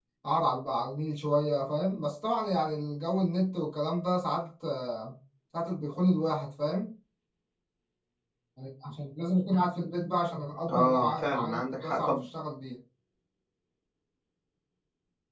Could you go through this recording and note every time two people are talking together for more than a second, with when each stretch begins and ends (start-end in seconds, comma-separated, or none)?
10.7-12.2